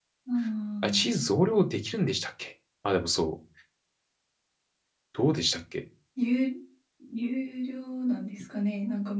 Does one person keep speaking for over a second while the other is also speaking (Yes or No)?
No